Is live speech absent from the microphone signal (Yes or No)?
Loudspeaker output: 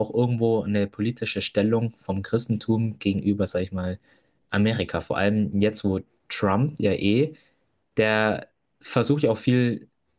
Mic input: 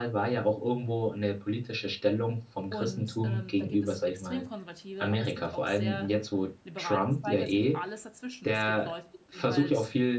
No